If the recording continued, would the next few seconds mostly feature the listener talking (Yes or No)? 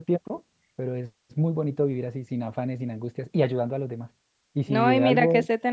Yes